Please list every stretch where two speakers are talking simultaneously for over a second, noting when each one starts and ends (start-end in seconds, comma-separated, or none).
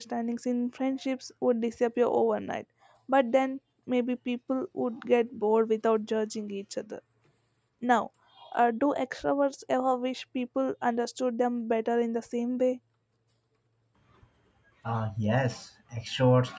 none